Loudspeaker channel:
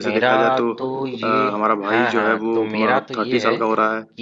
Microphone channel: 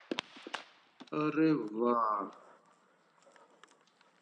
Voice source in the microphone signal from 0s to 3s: user only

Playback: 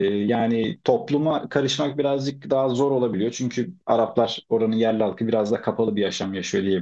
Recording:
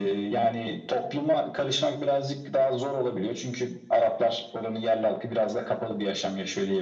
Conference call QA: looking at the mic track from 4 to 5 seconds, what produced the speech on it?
echo only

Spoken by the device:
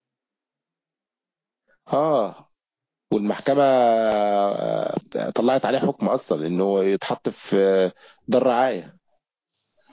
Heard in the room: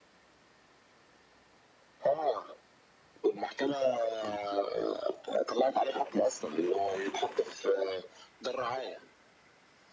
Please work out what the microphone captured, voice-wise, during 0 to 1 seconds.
neither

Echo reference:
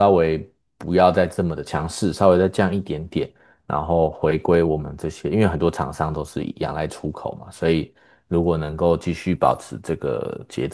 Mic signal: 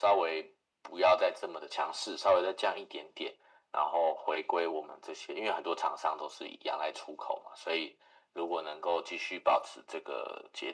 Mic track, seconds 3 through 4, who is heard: echo only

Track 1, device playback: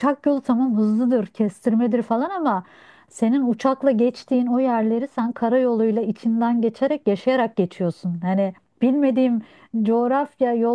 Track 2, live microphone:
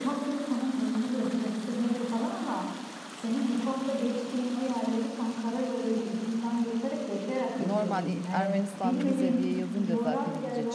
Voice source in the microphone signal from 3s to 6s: echo only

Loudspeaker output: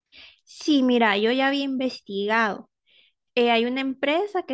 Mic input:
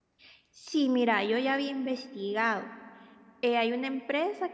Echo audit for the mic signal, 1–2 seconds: echo only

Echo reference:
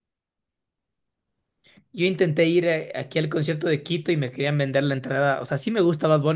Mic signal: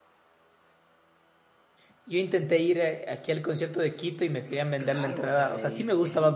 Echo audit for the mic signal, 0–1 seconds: neither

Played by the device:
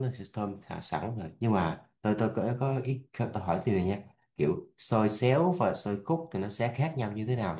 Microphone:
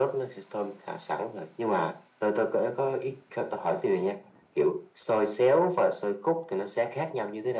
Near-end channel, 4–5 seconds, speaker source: echo only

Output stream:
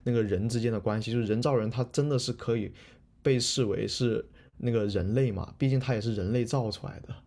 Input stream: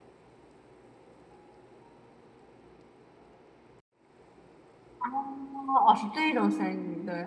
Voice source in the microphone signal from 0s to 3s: neither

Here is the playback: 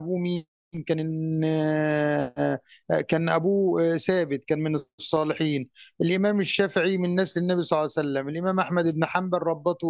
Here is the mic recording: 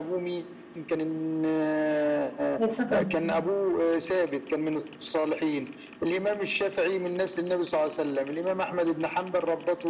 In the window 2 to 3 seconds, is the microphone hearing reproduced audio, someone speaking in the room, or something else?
both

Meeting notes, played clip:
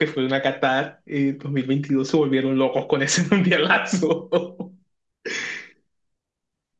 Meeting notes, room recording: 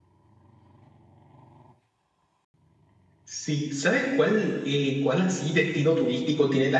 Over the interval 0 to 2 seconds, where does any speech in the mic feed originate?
neither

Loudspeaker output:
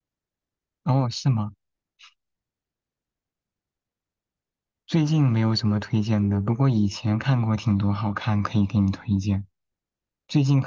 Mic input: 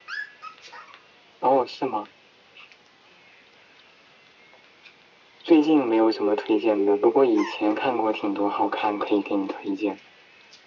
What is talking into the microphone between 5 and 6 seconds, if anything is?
echo only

